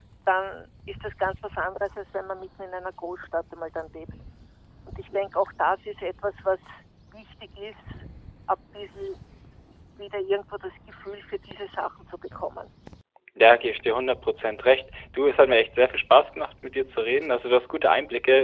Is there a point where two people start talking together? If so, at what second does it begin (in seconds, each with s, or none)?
none